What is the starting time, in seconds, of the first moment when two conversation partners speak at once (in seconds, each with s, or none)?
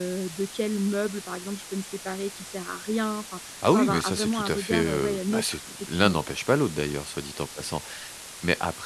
3.6 s